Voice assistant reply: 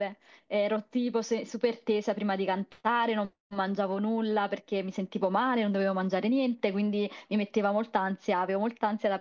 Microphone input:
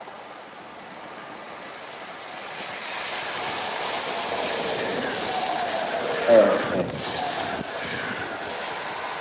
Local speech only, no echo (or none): Eh, ok.